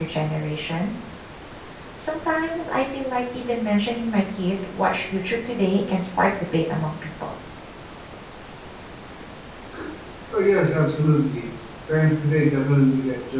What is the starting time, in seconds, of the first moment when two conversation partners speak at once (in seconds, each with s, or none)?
none